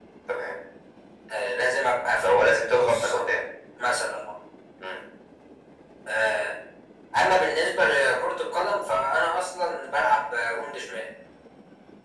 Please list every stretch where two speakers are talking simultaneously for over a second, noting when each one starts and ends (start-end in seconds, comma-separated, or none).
2.2-3.4